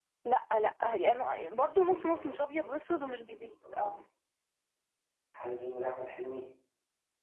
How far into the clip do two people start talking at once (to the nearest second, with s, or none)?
2 s